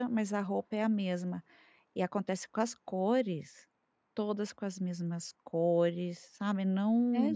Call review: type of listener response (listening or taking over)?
taking over